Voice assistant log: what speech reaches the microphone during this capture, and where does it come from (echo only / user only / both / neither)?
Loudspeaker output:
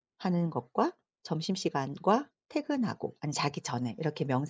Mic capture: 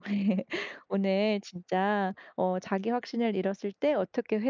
user only